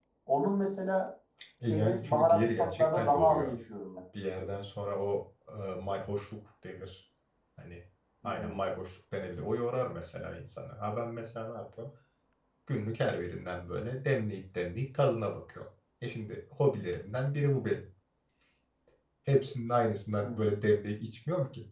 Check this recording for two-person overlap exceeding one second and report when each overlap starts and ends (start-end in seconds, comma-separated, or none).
1.6-3.6